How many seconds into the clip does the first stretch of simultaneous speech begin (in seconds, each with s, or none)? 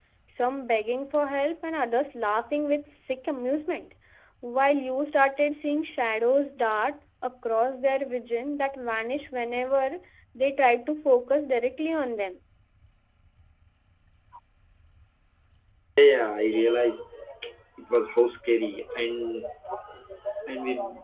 none